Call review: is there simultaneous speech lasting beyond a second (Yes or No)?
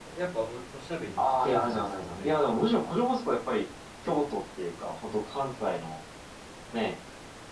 Yes